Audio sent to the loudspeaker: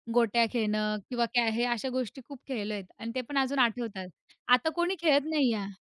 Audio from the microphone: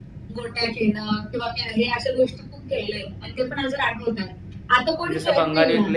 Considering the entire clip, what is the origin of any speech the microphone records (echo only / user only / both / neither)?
both